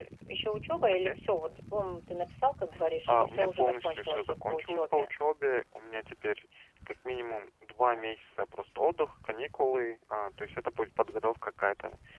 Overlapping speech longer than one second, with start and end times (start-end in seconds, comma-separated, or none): 3.1-5.2